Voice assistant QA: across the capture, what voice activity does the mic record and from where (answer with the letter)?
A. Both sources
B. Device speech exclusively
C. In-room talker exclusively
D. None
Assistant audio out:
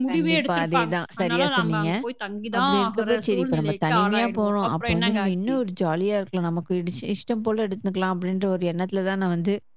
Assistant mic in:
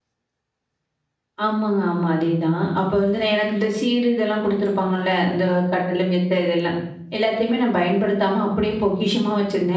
C